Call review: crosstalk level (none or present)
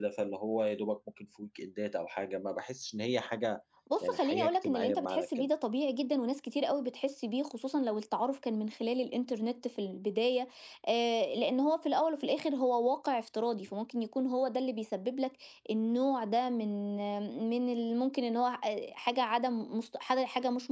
present